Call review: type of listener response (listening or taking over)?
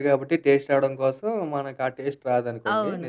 taking over